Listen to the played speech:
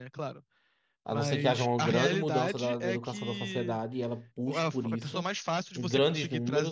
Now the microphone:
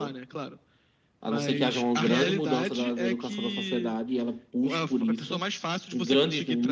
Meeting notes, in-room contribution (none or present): none